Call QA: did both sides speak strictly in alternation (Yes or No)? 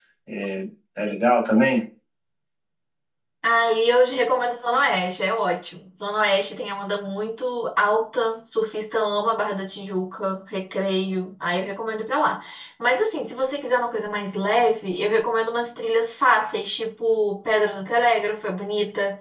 Yes